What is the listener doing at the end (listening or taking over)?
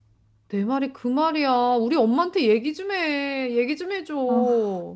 taking over